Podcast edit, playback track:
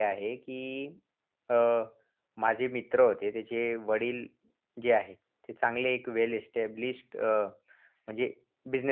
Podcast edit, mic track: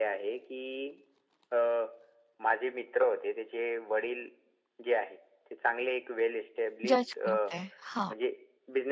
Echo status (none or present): present